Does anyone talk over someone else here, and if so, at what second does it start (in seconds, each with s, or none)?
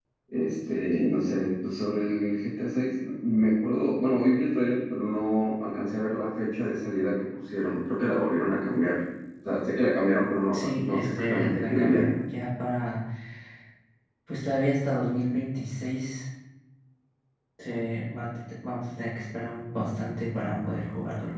10.5 s